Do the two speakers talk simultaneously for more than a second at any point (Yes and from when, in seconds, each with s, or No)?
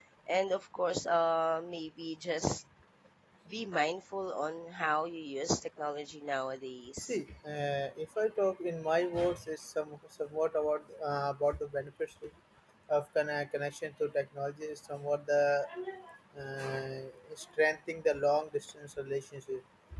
No